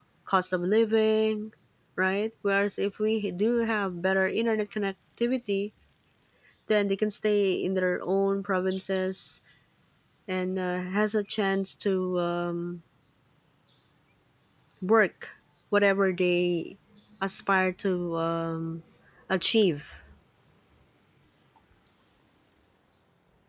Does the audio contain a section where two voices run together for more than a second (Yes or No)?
No